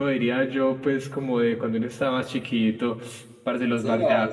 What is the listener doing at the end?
taking over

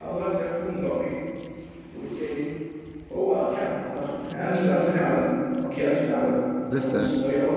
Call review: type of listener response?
listening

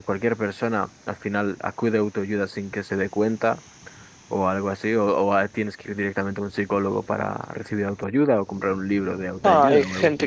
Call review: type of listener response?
taking over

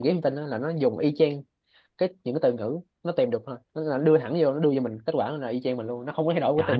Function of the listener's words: taking over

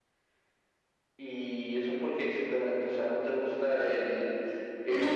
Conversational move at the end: taking over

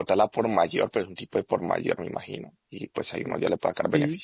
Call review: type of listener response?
taking over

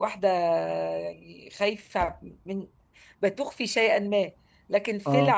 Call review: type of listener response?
listening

